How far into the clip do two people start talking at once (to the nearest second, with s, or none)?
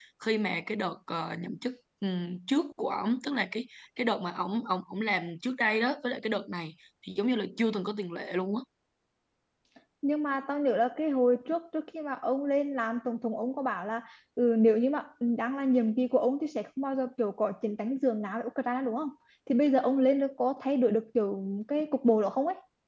none